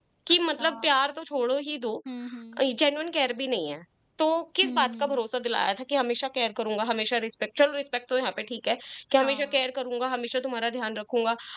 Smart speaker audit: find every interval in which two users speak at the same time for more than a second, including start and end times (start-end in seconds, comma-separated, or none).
none